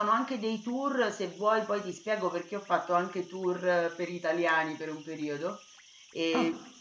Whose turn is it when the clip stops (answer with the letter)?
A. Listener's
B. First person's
B